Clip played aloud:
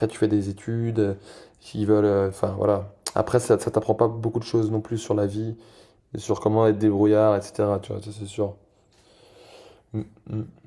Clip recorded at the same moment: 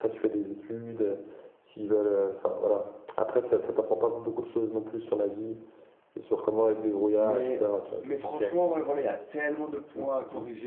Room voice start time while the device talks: 7 s

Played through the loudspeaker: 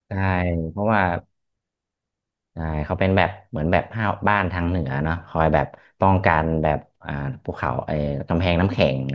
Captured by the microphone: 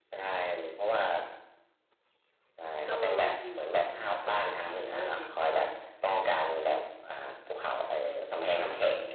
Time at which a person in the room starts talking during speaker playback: 3 s

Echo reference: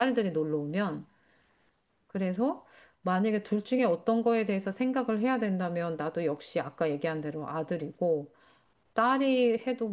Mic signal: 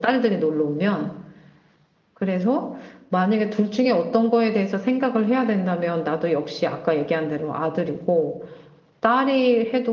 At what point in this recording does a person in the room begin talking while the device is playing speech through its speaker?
none

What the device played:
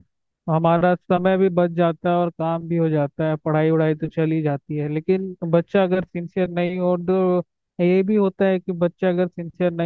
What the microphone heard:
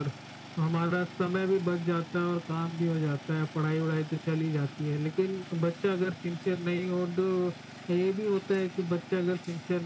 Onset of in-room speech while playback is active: none

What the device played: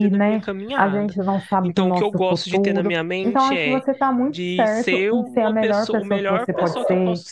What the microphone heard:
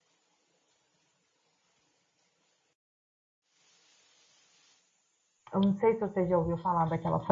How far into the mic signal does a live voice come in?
6 s

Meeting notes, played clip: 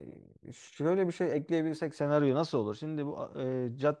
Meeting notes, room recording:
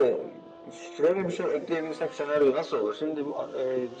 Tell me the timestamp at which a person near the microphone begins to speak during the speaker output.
none

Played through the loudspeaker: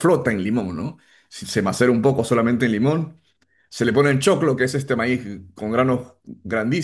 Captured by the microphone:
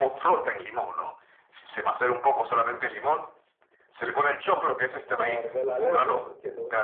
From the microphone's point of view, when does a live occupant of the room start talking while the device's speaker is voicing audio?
5 s

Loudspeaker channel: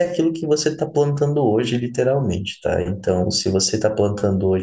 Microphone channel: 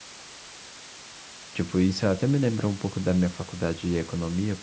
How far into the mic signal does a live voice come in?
2 s

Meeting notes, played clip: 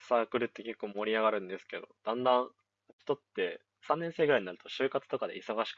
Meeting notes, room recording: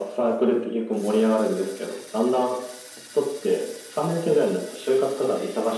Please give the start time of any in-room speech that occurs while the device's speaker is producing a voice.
none

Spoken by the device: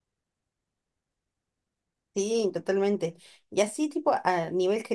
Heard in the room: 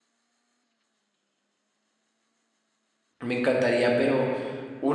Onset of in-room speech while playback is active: 3 s

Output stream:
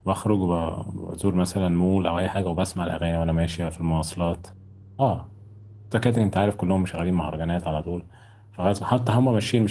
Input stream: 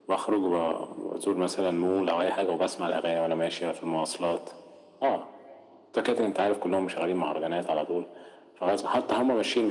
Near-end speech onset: none

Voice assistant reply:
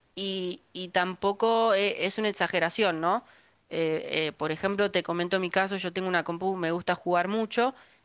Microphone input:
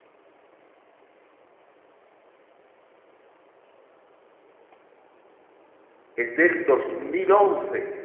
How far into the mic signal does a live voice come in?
6 s

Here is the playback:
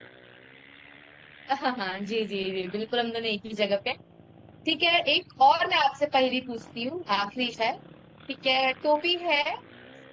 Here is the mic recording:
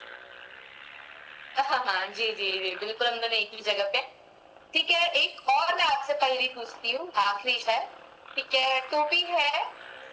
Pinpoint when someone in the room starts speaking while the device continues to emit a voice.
none

